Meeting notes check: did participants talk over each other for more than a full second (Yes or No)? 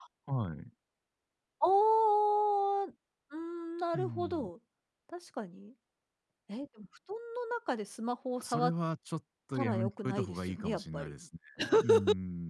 Yes